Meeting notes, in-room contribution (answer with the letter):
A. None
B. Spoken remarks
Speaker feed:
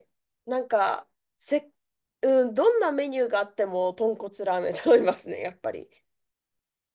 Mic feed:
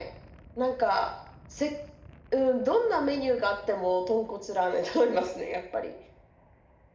A